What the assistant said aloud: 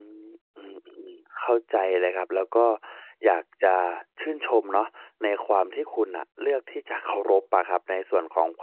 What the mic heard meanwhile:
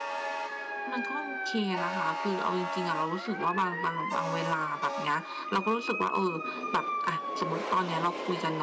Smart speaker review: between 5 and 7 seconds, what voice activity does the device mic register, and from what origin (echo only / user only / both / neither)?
user only